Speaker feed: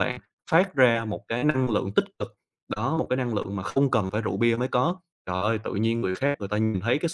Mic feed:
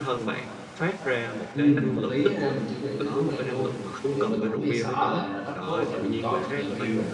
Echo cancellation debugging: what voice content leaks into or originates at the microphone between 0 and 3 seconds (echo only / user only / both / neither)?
both